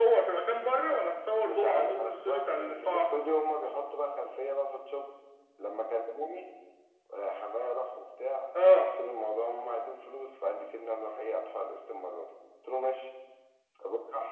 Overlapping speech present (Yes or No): Yes